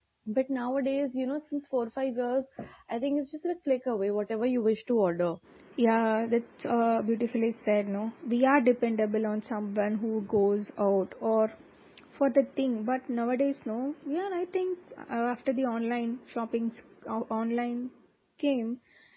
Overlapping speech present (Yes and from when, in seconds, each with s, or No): No